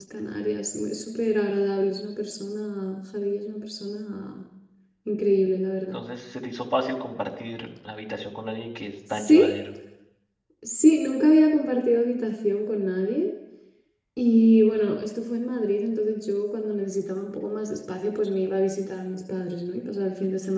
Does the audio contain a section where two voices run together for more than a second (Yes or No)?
No